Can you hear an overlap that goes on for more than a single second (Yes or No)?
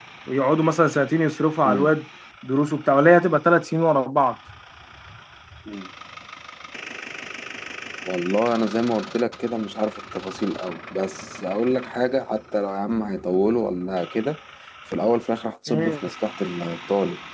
No